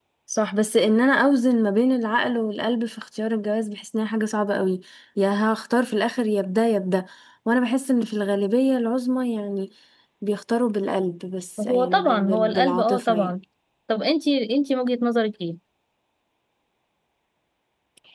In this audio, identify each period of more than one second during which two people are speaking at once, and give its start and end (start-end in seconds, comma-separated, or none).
11.7-13.4